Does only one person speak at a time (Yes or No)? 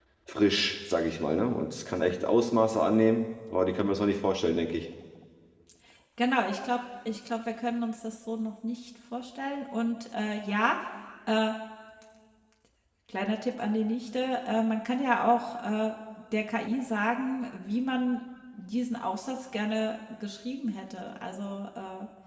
Yes